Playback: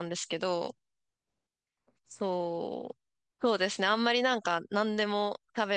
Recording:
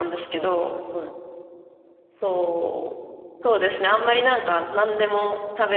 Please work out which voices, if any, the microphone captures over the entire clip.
both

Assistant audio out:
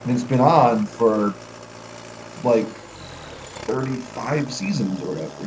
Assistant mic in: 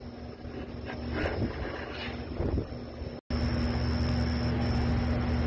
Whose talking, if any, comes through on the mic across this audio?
neither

